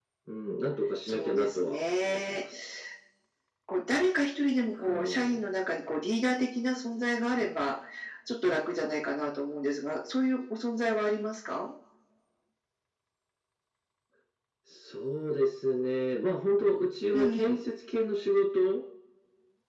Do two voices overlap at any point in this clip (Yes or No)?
Yes